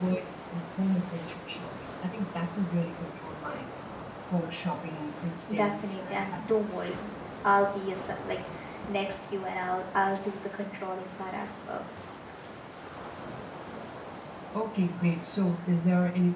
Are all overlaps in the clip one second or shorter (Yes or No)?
No